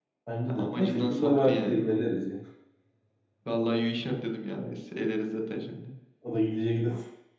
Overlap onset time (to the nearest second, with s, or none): 1 s